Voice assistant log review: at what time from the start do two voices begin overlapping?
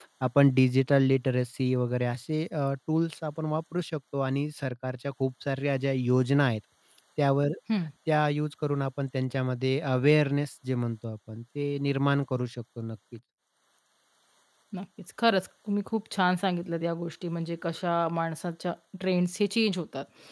none

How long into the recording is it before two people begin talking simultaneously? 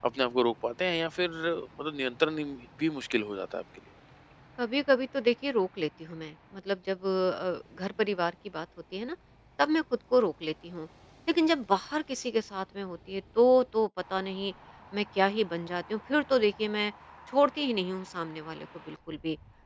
none

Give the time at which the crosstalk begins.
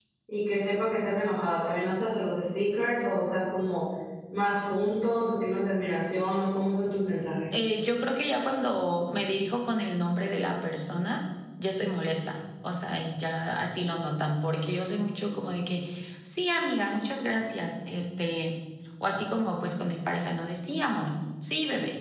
none

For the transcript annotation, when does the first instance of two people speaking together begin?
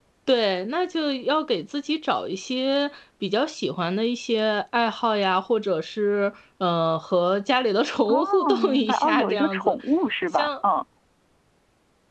8.1 s

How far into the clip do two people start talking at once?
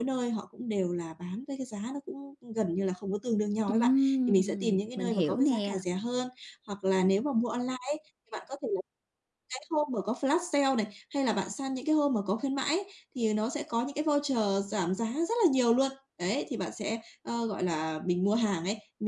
3.7 s

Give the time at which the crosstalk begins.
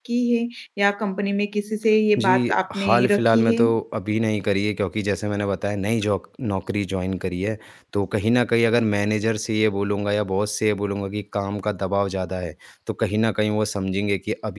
2.2 s

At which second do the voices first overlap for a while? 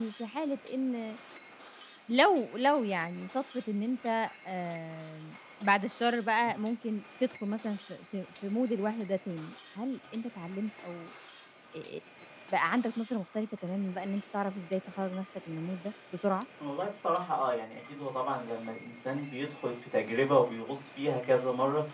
none

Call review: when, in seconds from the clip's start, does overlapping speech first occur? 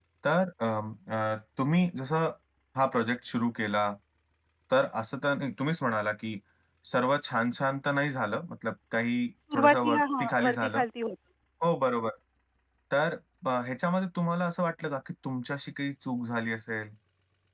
9.5 s

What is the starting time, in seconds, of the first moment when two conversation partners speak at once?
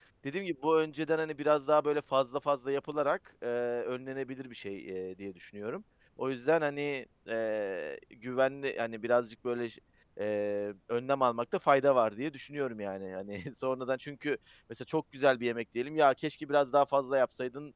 none

